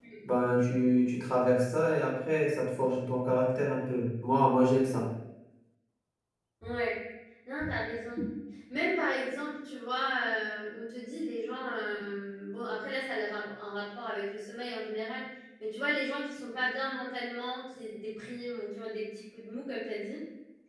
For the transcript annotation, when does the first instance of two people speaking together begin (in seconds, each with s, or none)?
none